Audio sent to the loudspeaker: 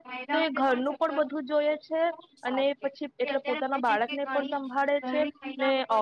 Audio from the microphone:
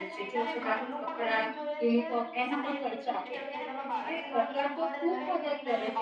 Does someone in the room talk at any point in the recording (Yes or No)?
Yes